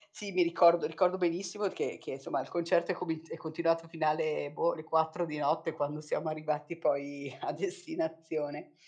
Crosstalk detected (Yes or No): No